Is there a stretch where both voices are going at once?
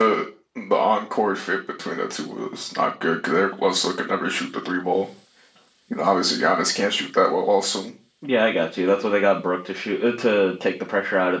No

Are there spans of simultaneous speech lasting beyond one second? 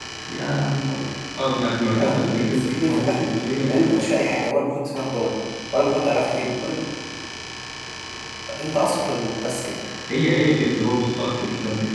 Yes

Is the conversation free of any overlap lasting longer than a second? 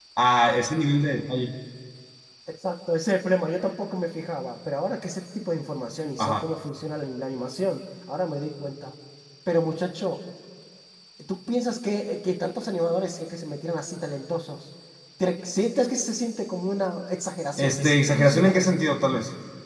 No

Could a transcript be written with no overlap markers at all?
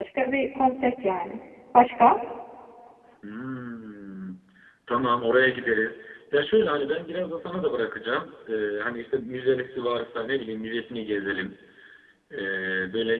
Yes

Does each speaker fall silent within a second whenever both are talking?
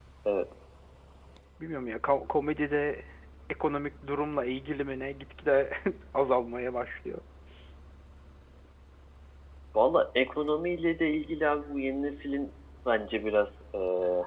Yes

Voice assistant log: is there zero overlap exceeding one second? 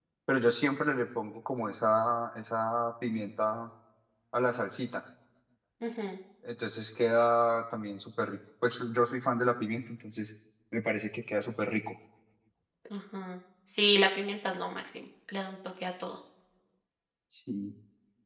Yes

